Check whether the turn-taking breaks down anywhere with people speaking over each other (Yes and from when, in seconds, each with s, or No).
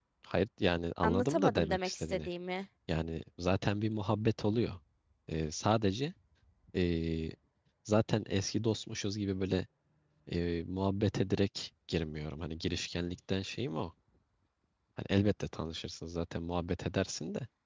Yes, from 1.0 s